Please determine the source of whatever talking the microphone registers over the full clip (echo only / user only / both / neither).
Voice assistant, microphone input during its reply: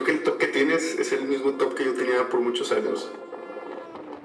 echo only